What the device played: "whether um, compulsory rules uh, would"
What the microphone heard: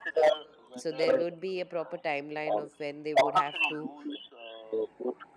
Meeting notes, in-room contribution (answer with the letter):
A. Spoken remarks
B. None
A